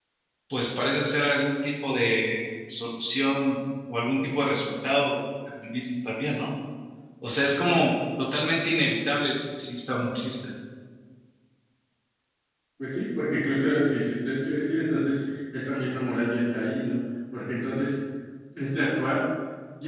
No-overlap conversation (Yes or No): Yes